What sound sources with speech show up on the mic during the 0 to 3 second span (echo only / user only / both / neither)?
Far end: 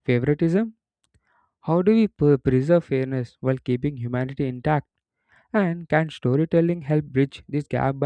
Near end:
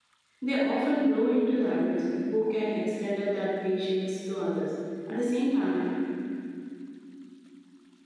user only